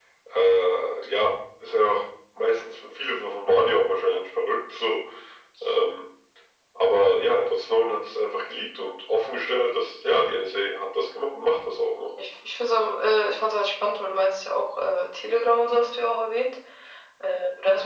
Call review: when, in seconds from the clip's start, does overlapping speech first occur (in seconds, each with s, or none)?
none